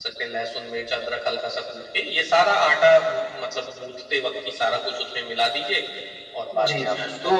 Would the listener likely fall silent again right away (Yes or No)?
No